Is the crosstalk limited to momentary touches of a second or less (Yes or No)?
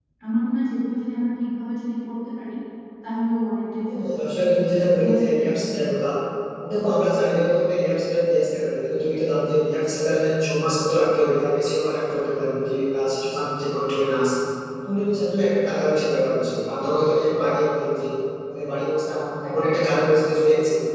No